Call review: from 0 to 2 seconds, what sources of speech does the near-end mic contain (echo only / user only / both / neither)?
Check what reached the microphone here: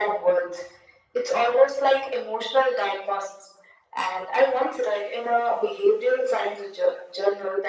echo only